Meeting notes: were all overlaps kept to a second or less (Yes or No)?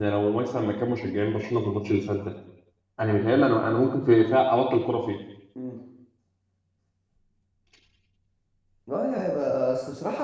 Yes